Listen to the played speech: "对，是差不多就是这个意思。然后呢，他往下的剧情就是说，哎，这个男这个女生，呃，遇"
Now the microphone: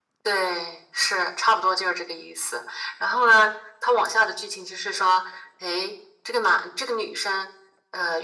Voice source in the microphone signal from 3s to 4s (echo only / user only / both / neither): echo only